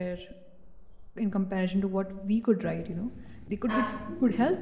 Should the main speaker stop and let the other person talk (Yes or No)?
No